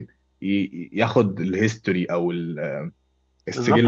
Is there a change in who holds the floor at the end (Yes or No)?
Yes